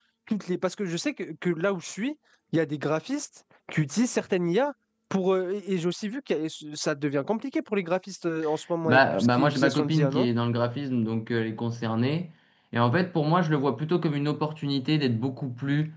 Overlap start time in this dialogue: 8.8 s

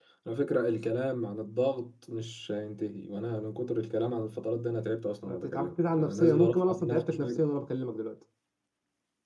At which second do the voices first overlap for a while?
5.2 s

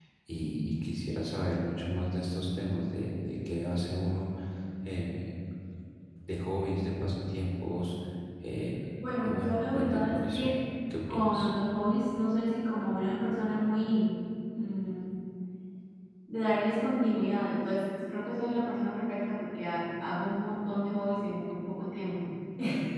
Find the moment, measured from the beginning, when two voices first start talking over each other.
9.2 s

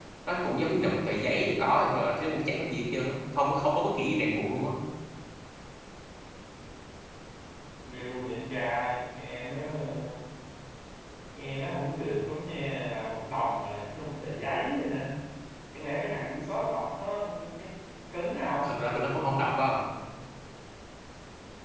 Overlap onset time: none

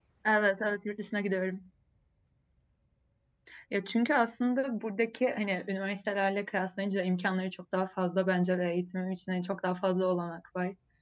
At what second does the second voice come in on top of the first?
none

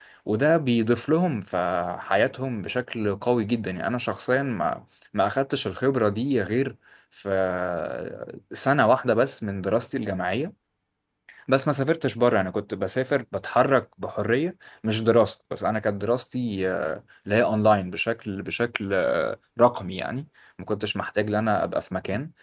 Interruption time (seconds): none

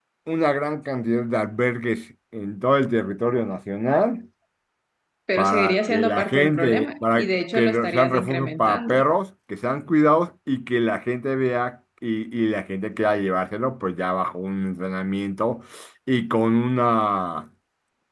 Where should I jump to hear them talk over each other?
5.4 s

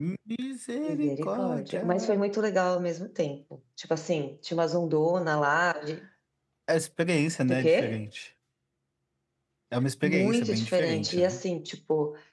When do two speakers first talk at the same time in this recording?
0.8 s

